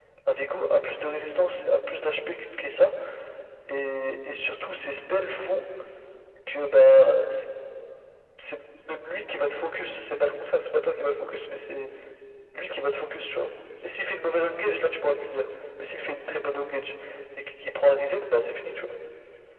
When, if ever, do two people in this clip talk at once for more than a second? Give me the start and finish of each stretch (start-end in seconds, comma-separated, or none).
none